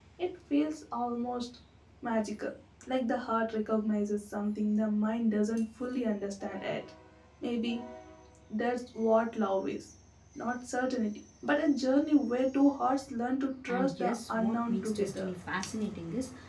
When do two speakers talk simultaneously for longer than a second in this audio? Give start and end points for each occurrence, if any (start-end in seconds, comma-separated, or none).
13.7-15.3